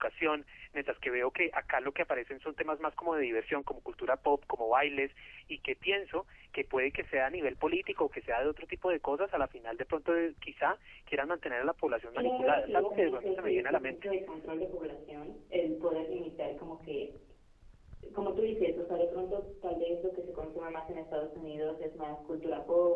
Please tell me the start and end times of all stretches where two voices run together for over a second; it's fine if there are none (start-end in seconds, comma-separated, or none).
12.1-14.1